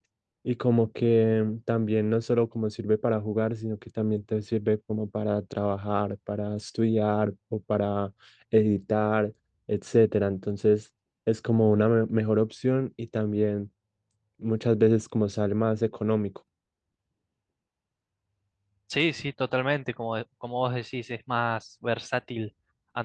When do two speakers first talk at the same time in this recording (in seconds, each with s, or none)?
none